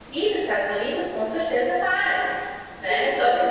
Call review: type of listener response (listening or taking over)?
listening